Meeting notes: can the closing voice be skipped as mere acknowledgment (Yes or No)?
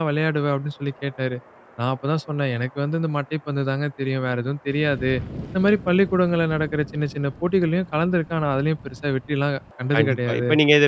No